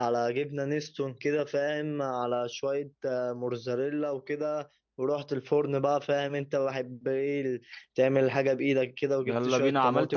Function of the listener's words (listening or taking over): taking over